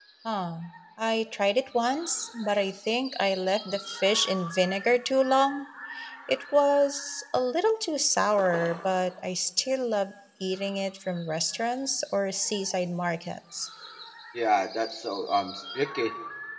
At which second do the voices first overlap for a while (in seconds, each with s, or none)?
none